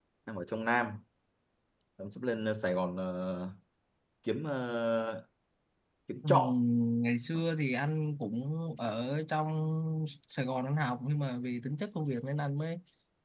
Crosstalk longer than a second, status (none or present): none